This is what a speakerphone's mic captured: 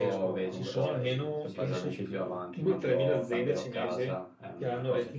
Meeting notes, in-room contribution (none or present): present